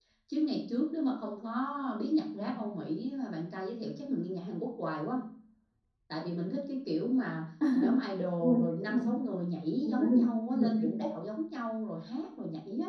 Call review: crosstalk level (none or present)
present